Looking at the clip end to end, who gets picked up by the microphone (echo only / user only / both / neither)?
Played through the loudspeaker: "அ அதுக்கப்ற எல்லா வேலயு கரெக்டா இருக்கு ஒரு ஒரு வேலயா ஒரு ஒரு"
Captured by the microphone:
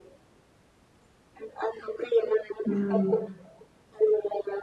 both